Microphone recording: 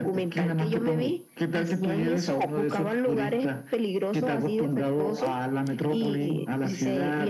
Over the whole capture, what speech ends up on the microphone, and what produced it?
echo only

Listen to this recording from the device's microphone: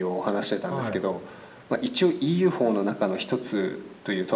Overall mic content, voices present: both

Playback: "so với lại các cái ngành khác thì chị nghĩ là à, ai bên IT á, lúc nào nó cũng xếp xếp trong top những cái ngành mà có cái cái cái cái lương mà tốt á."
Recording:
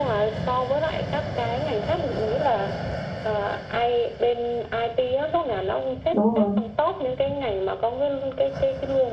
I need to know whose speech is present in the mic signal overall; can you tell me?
both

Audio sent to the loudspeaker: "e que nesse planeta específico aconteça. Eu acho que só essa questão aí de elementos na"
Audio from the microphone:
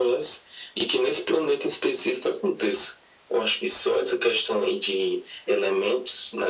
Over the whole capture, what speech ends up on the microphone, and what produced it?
echo only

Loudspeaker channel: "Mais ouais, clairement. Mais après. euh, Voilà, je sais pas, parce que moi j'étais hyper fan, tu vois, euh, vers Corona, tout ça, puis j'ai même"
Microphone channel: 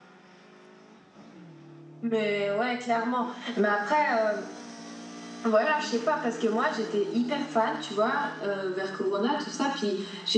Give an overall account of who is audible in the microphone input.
echo only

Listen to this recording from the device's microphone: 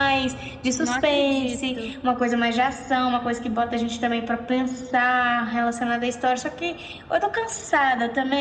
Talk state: both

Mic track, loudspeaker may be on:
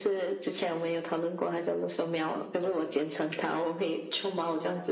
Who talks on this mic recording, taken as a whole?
both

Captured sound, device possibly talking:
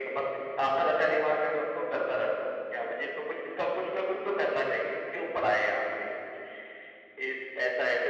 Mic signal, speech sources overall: echo only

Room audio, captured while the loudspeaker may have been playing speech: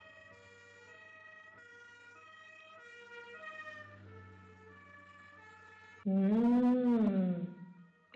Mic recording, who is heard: user only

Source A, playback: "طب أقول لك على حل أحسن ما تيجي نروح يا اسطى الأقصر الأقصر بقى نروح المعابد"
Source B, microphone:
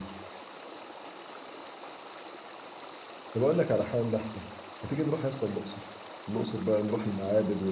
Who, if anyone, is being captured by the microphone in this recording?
echo only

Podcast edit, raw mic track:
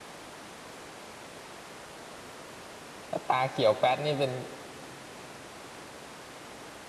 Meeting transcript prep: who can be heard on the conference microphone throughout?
user only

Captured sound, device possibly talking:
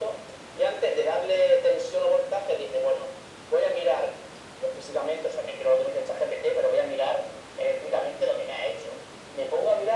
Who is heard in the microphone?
echo only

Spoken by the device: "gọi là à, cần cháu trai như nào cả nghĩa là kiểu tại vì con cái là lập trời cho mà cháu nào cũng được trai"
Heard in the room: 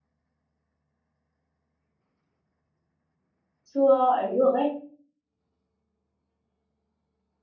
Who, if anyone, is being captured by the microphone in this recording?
user only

